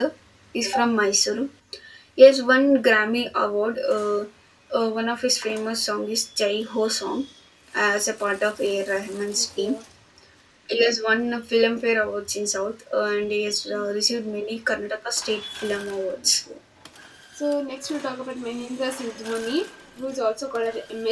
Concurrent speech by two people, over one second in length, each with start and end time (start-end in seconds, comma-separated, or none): none